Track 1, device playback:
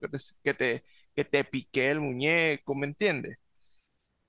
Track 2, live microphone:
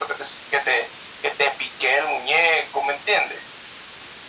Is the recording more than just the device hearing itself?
No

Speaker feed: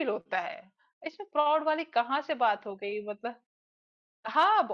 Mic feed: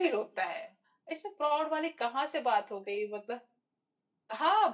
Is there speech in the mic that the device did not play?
No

